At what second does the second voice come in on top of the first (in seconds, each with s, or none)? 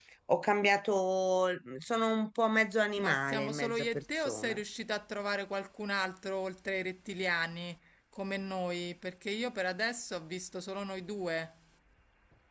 3.0 s